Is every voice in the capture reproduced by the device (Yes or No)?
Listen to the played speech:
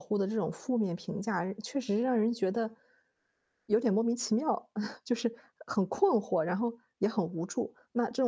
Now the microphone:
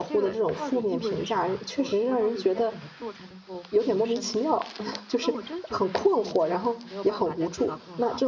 No